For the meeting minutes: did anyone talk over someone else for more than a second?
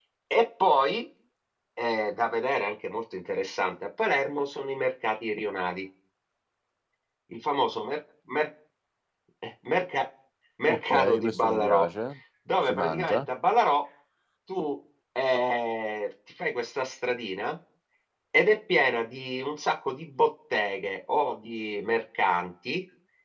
Yes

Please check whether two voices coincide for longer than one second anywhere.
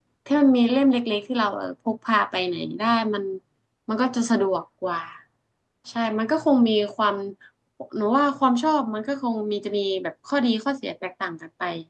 No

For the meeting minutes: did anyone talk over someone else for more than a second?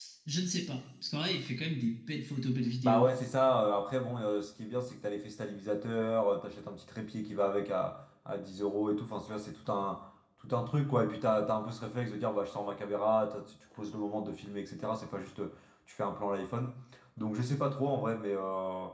No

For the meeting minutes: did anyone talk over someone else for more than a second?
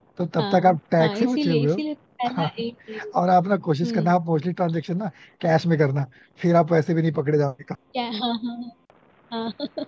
Yes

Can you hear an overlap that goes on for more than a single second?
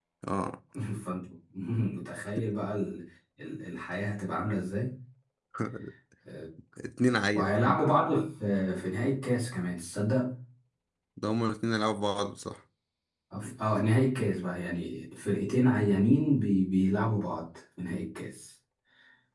No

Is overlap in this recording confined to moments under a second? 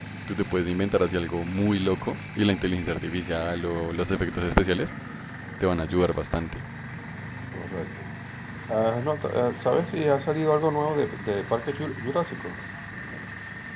Yes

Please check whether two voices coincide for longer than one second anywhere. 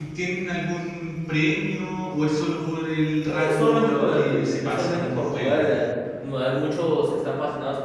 Yes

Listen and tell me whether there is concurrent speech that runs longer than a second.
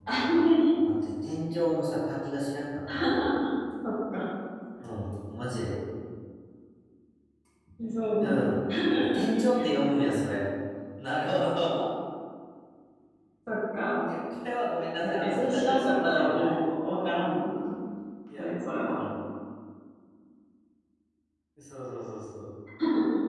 Yes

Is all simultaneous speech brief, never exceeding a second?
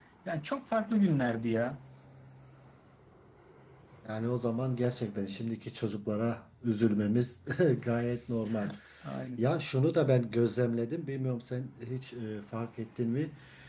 Yes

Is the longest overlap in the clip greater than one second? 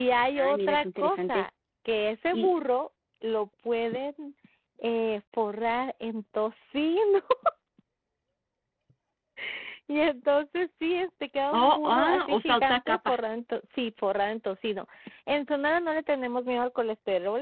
Yes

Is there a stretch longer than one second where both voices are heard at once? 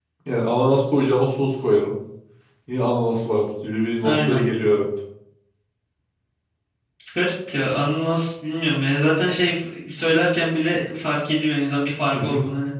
No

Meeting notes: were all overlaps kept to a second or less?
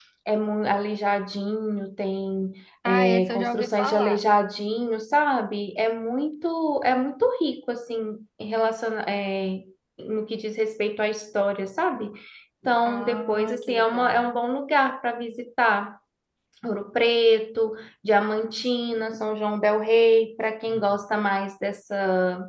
No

